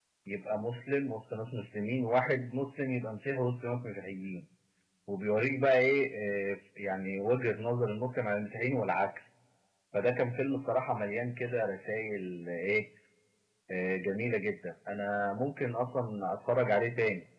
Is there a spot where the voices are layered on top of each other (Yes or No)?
No